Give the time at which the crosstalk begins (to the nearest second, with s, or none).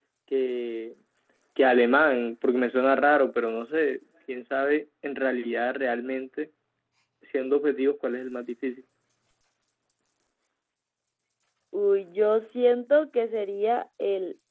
none